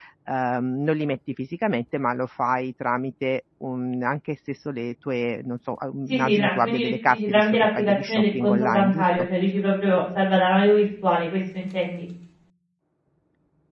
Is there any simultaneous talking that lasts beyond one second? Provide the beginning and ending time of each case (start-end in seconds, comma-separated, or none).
6.1-9.3